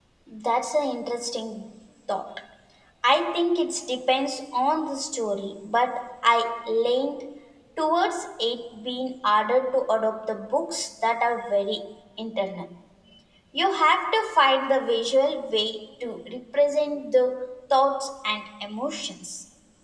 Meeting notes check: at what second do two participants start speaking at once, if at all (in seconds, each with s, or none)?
none